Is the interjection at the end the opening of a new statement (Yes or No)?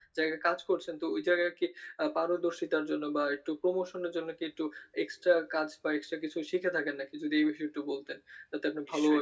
Yes